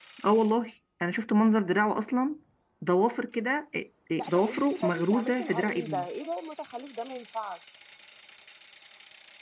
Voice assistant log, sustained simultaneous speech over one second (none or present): present